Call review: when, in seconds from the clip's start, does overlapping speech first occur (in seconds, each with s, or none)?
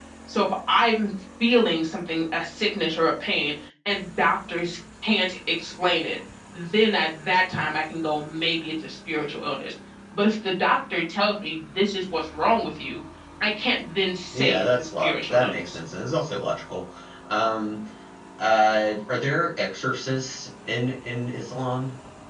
14.3 s